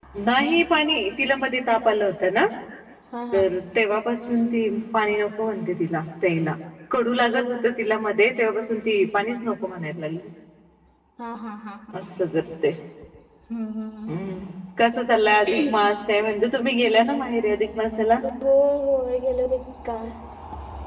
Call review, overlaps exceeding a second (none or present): none